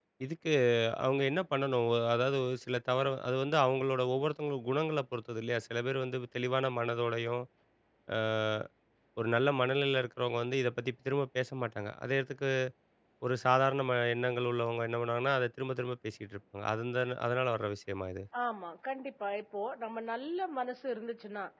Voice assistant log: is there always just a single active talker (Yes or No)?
Yes